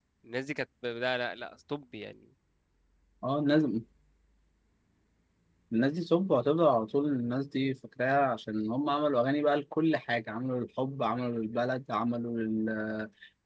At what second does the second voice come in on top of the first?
none

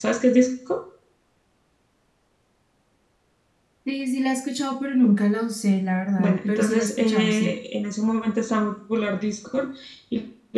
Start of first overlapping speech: 6.2 s

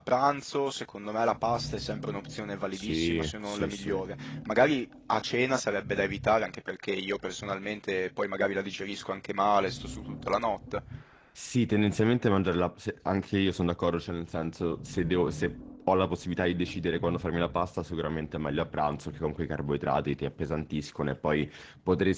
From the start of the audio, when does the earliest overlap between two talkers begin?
2.7 s

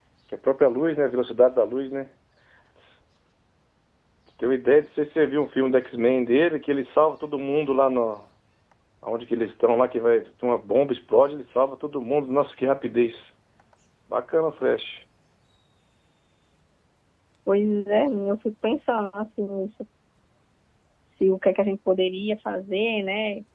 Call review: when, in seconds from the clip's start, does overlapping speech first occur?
none

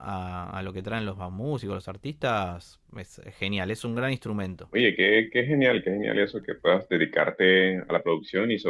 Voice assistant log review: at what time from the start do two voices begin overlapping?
none

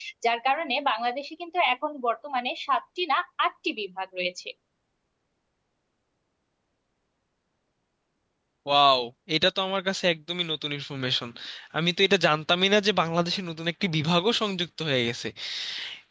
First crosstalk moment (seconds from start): none

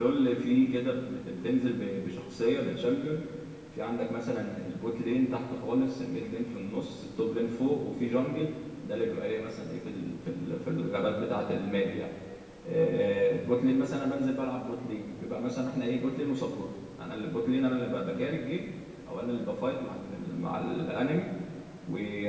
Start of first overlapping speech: none

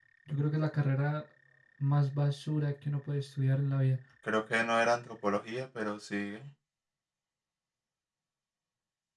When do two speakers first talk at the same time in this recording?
none

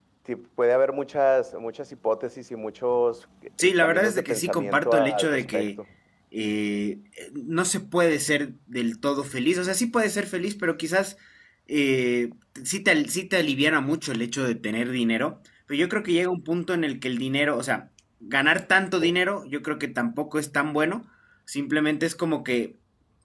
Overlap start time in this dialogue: 3.6 s

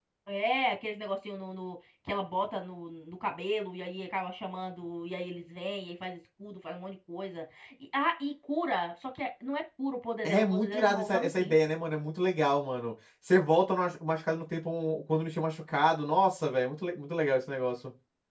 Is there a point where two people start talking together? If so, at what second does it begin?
10.2 s

